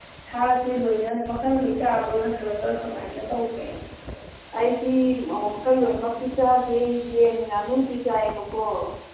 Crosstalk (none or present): none